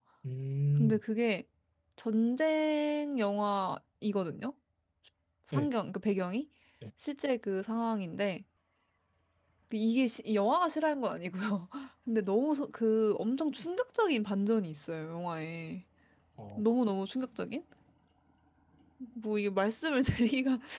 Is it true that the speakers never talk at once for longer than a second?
Yes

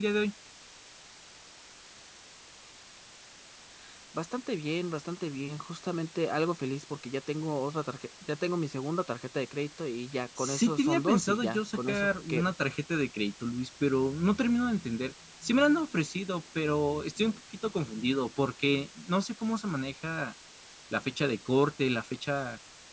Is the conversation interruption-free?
No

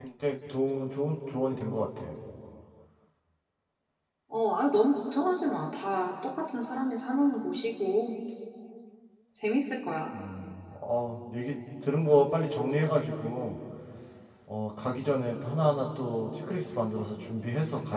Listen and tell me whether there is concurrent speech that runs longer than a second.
No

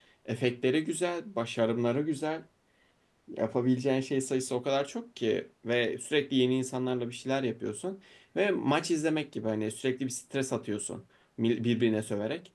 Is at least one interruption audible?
No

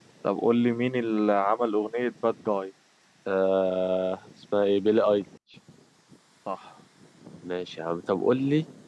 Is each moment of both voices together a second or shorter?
Yes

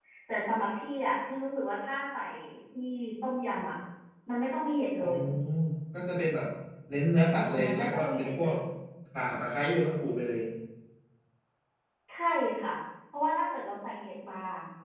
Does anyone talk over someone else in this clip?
Yes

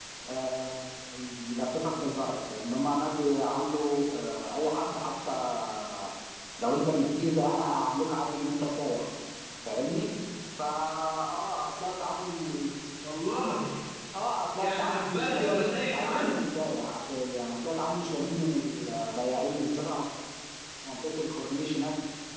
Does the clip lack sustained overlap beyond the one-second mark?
No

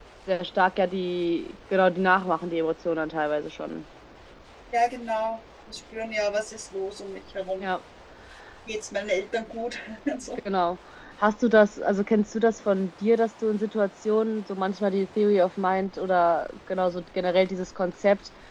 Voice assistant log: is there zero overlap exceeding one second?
Yes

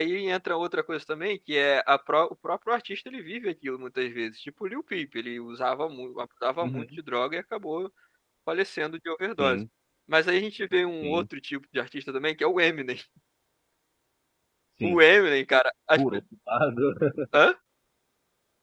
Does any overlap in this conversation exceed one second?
No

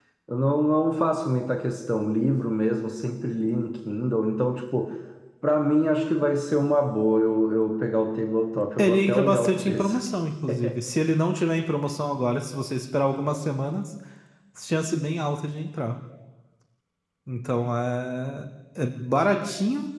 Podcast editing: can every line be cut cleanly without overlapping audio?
No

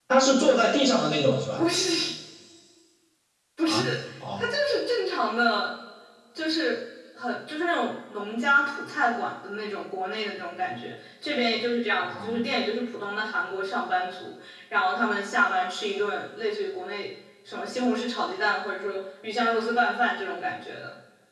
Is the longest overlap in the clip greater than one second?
No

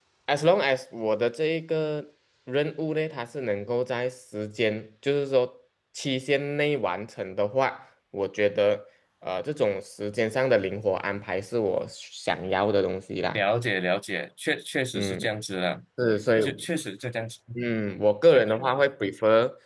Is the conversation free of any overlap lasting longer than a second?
Yes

